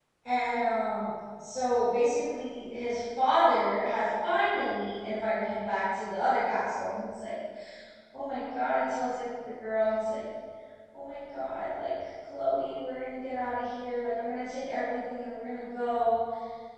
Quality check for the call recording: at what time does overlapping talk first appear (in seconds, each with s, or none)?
none